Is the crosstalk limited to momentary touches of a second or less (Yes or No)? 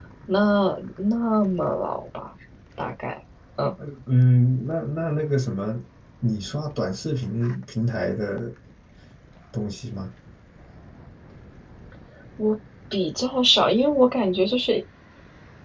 Yes